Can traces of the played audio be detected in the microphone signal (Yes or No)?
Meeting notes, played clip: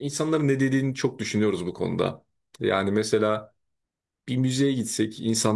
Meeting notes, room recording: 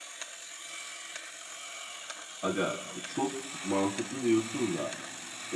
No